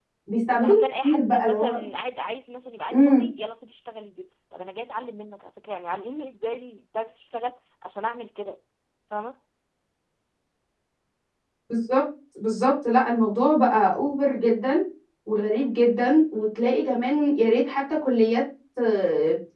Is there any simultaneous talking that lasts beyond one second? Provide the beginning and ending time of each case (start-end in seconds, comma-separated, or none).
0.5-1.8